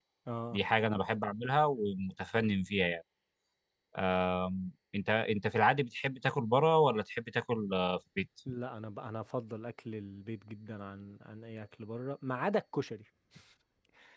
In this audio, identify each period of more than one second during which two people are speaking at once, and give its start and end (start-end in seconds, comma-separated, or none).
none